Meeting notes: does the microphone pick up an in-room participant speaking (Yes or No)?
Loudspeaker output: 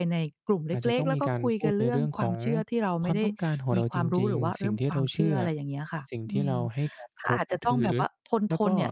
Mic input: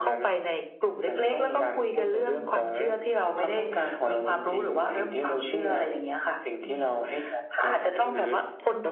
No